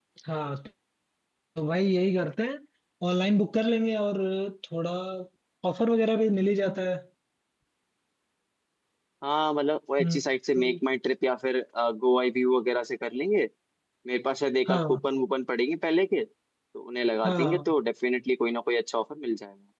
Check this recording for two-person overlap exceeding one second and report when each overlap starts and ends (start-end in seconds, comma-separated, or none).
none